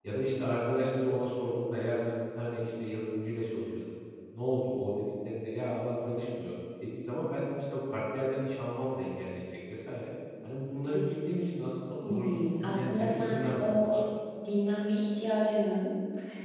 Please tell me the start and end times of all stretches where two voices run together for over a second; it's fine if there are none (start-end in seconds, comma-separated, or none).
12.1-13.9